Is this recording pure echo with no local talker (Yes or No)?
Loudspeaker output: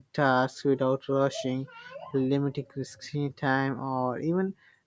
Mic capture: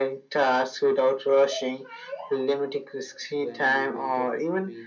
No